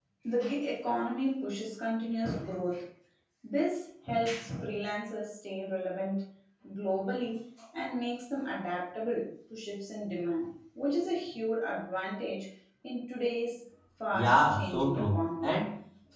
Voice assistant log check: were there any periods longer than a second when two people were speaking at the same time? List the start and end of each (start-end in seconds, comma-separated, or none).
14.1-15.5